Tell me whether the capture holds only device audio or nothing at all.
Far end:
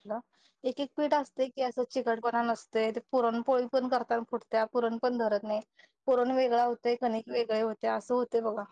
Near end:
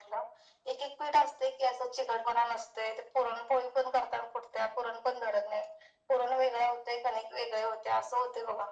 Yes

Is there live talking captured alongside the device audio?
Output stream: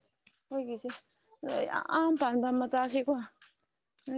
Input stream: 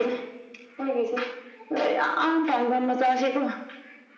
No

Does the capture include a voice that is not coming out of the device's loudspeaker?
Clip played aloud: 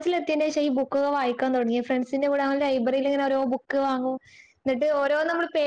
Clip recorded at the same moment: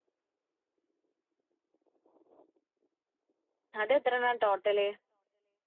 Yes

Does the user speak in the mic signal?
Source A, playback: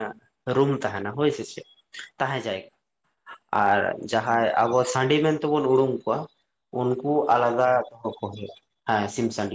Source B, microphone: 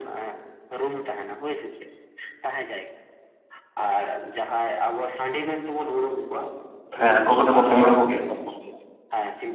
Yes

